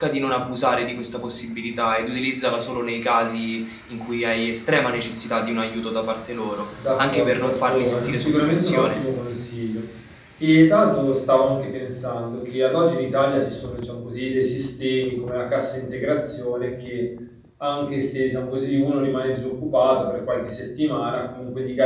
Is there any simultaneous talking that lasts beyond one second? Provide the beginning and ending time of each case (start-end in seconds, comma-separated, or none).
7.0-9.0